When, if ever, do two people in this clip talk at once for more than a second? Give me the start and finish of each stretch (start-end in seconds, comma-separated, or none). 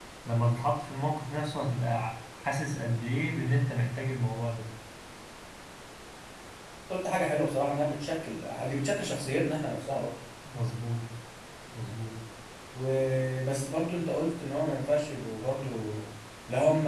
none